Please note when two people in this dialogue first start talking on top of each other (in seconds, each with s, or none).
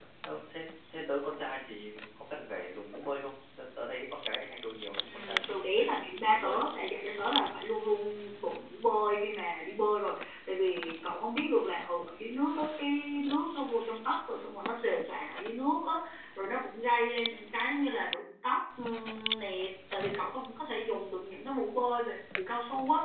5.0 s